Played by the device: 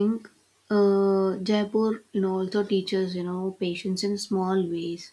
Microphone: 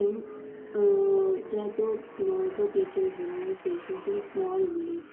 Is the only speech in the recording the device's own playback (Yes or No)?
Yes